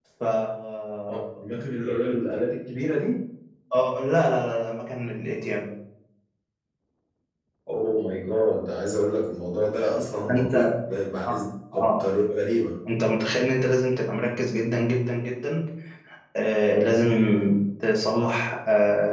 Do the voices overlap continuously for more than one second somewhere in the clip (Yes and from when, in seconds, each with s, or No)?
No